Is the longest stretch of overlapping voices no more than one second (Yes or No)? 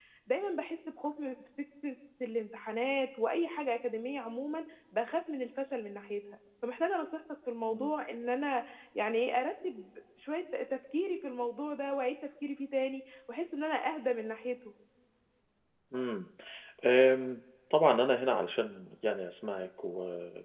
Yes